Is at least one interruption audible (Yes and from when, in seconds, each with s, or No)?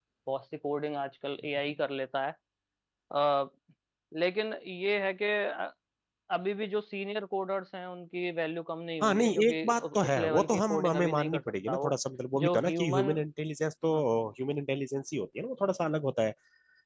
Yes, from 9.0 s